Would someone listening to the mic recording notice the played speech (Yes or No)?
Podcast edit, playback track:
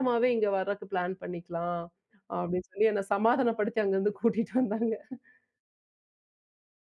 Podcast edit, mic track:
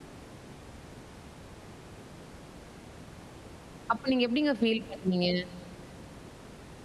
No